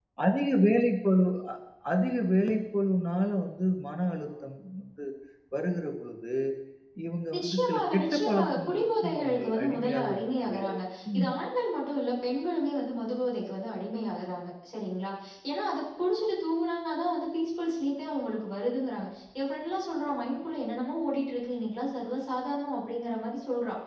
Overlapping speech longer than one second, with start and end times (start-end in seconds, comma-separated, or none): 7.4-10.5